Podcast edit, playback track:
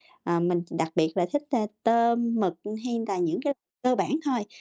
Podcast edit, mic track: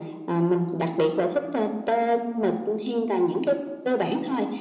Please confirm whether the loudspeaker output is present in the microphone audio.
Yes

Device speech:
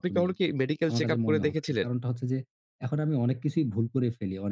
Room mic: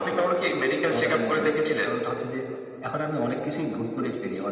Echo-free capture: No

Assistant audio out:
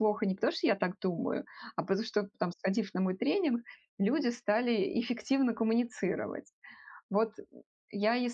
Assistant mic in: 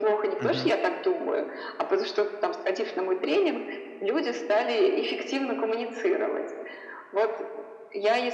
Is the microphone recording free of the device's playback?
No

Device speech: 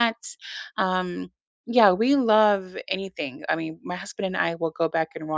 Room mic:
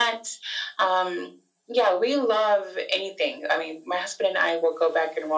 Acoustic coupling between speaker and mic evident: Yes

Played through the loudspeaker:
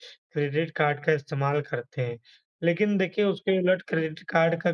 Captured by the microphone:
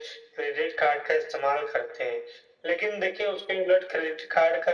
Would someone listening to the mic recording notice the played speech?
Yes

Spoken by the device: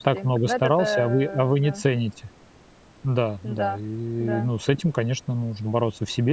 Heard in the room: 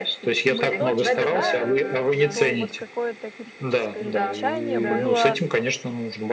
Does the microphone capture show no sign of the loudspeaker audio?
No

